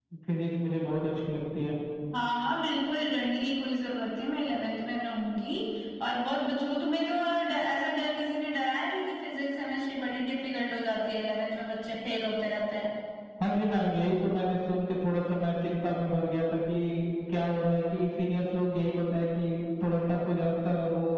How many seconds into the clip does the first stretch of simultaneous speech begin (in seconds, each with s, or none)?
none